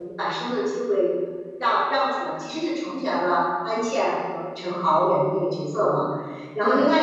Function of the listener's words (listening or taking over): listening